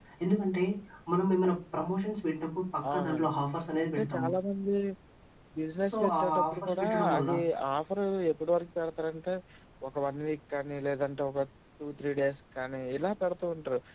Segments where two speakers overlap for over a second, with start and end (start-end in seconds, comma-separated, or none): 5.9-7.3